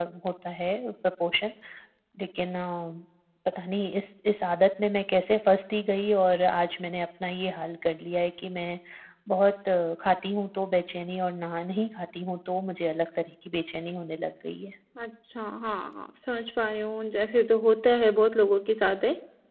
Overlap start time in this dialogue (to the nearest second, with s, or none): none